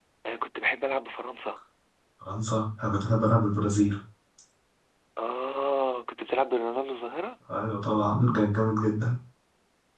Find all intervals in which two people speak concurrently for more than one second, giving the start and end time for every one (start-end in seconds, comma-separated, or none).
none